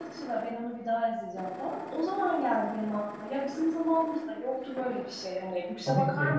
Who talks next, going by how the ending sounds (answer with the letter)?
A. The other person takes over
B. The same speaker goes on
B